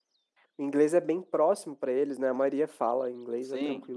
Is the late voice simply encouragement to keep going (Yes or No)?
No